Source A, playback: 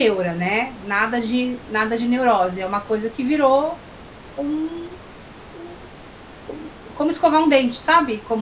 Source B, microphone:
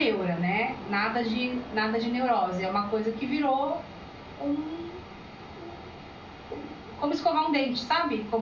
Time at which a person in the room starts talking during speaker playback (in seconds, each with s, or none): none